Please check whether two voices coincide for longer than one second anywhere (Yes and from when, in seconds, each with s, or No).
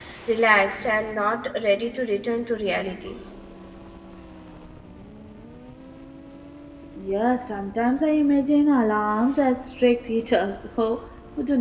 No